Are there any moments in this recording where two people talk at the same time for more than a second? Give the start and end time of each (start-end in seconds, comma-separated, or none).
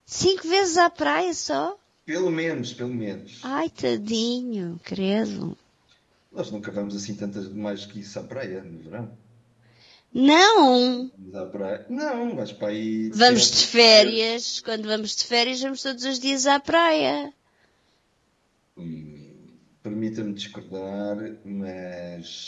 13.1-14.3